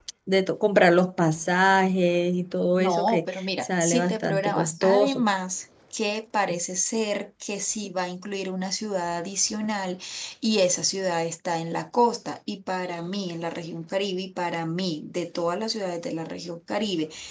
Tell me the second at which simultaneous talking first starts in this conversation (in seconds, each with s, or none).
2.8 s